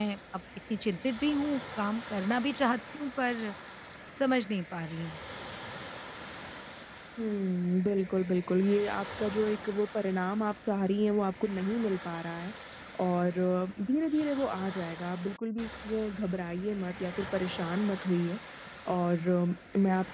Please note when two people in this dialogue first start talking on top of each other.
none

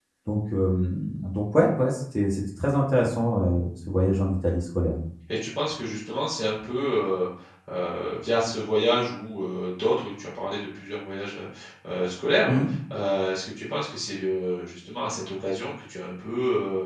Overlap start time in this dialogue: none

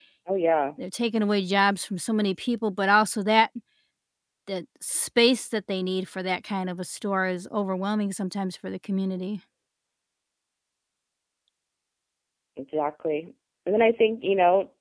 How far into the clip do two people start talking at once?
none

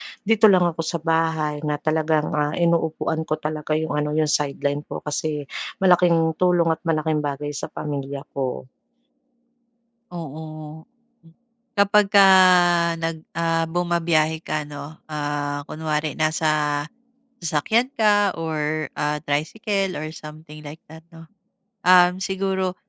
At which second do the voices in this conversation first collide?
none

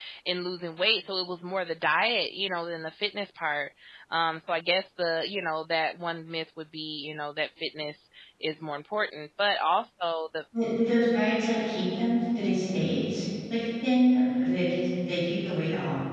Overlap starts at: none

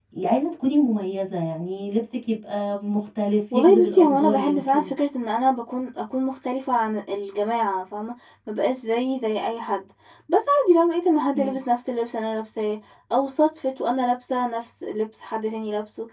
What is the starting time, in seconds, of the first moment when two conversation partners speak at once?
3.5 s

